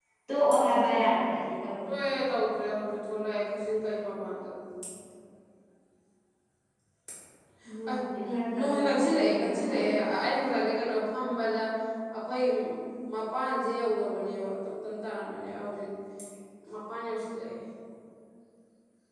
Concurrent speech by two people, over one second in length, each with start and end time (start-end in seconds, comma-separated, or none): 8.3-9.9